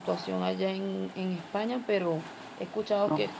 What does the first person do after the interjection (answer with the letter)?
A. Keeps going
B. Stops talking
A